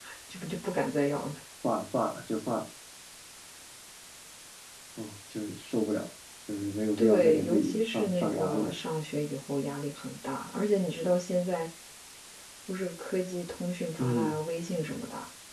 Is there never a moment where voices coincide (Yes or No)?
No